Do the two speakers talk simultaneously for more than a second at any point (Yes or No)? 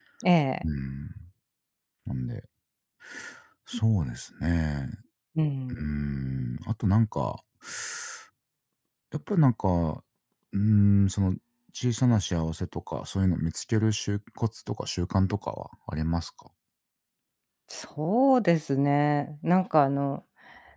No